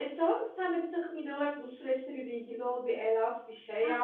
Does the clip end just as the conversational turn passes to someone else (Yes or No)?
Yes